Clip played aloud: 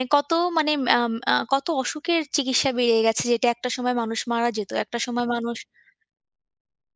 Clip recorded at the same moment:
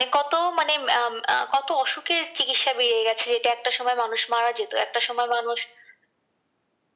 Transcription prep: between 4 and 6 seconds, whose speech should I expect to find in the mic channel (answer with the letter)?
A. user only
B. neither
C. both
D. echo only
D